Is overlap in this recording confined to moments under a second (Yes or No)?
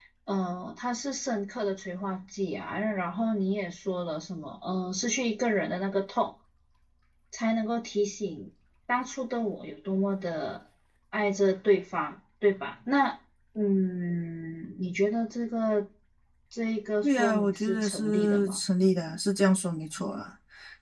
No